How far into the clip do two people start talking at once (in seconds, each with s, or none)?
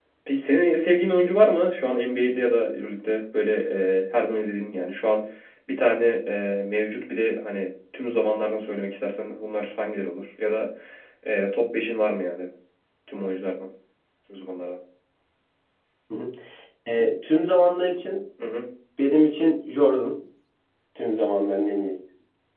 none